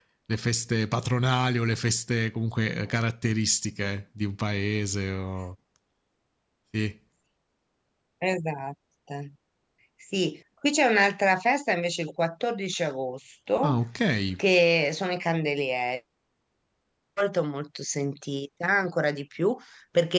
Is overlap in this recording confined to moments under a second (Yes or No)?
Yes